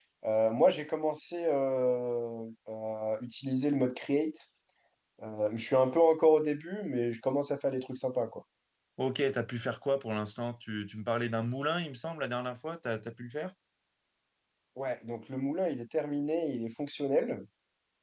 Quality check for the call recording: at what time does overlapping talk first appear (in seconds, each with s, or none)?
none